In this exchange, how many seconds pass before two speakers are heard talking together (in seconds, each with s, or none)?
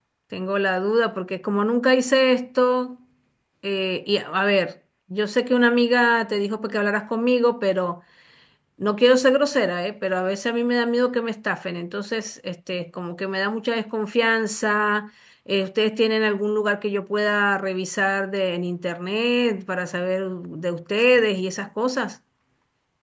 none